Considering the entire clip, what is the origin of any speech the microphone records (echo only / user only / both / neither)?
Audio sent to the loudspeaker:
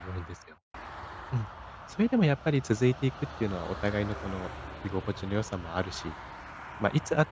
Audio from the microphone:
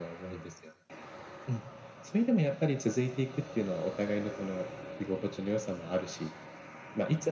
echo only